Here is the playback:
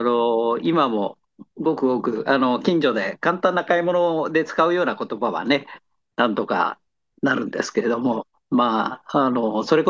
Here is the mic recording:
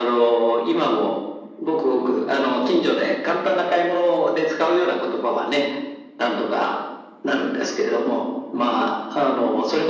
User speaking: No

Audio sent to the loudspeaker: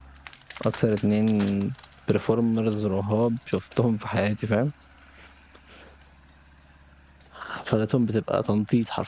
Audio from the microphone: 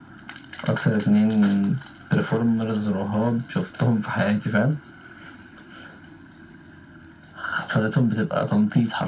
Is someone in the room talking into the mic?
No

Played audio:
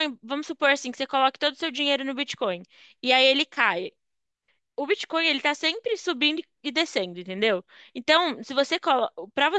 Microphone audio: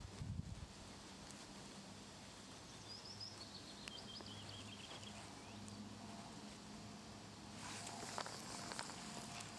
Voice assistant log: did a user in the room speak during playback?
No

